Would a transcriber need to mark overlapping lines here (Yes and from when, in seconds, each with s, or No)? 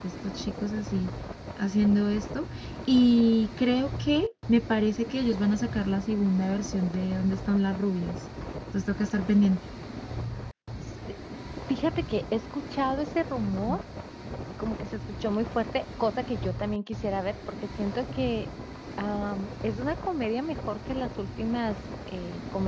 No